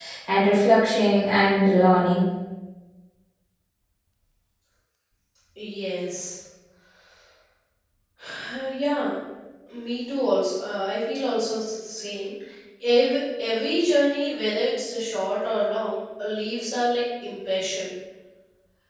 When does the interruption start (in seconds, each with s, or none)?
none